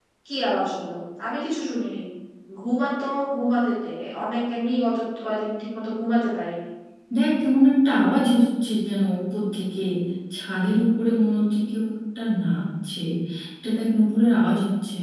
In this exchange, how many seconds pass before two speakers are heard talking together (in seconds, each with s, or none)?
none